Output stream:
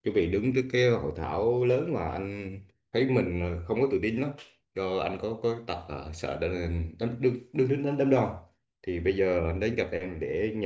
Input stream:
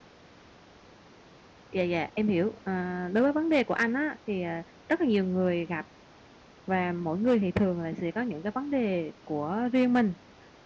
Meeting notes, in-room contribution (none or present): present